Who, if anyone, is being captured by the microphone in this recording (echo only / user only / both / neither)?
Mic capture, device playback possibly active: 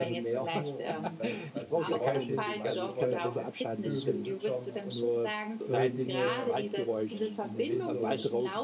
both